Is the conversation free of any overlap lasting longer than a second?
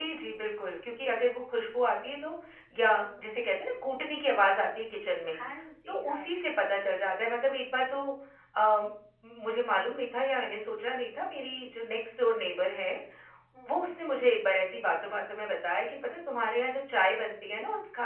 Yes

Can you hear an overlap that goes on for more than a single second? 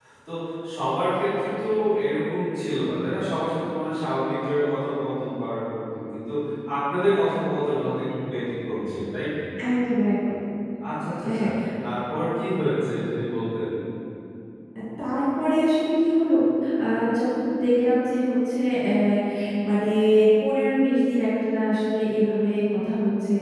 No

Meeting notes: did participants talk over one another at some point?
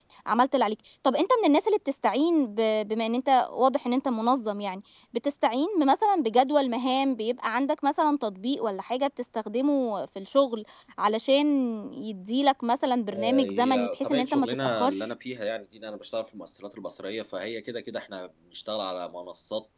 Yes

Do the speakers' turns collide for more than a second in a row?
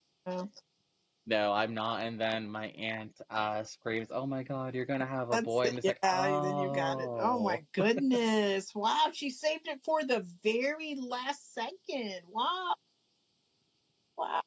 Yes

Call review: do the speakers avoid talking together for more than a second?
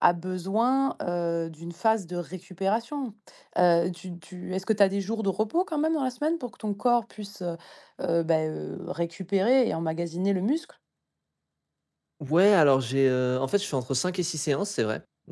Yes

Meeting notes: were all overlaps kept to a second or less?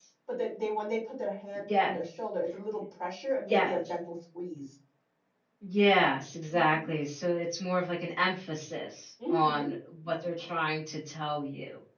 Yes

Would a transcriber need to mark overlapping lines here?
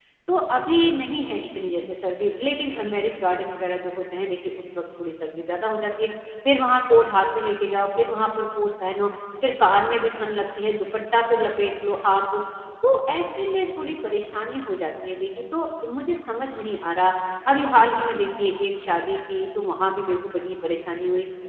No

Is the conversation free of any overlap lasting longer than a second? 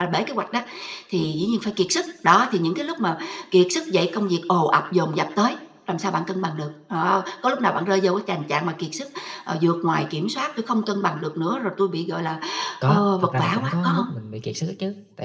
No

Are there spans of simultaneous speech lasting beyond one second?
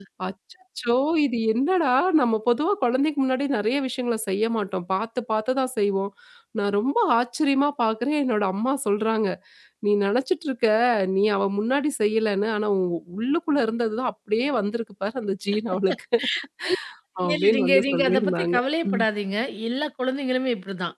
Yes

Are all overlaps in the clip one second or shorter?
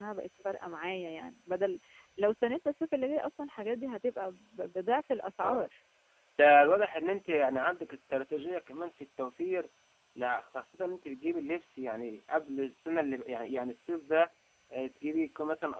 Yes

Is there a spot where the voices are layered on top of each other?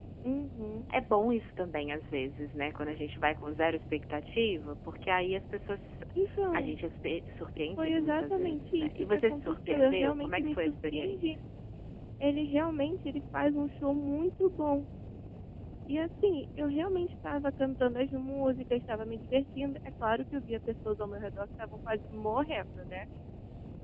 Yes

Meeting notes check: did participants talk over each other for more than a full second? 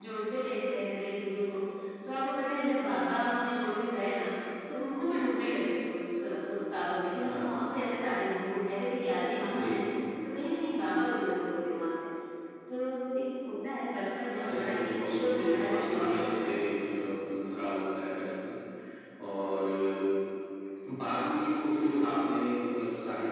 Yes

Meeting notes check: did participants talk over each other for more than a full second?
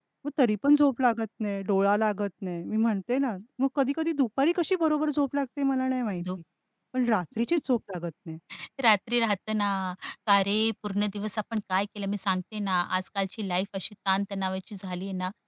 No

